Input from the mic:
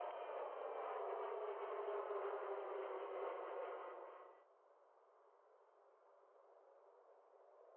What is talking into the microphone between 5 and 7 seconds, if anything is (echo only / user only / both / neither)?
neither